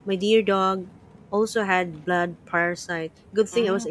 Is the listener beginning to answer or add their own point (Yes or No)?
No